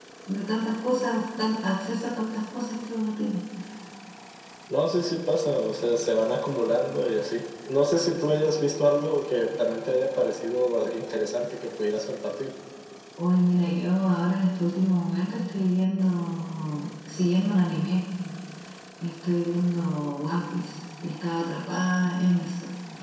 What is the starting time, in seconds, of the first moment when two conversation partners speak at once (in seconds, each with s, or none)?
none